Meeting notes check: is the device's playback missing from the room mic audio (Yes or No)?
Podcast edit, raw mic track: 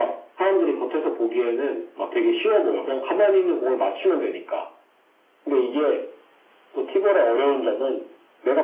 No